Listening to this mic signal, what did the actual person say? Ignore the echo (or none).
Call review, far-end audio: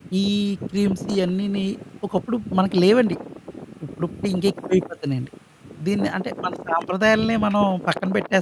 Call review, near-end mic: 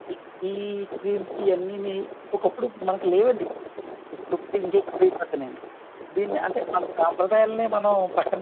none